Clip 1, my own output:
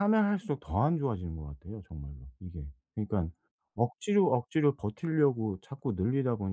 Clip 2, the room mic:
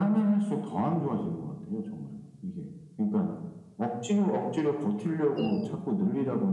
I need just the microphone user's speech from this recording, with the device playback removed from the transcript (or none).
네.